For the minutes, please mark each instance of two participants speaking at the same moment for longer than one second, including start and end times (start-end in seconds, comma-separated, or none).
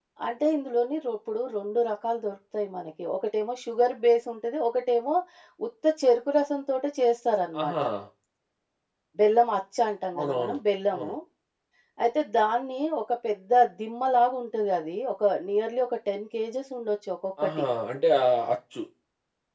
none